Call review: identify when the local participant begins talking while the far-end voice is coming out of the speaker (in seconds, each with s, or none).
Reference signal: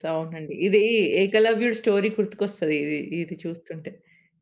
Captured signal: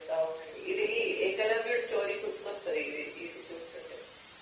none